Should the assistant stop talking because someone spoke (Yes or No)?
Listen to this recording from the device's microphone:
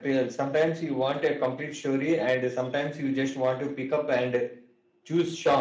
Yes